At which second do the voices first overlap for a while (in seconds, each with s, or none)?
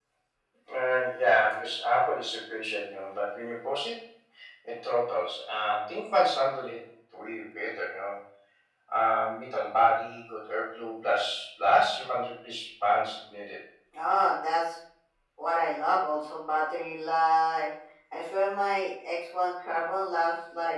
none